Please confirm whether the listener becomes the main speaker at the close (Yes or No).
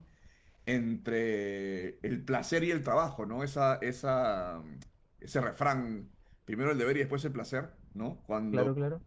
No